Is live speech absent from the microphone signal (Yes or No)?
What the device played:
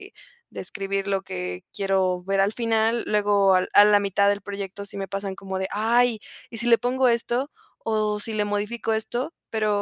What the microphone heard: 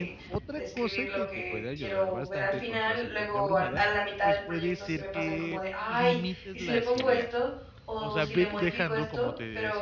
No